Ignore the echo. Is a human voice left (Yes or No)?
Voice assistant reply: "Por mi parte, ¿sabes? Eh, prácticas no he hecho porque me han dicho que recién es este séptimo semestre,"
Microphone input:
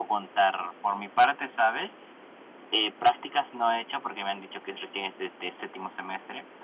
No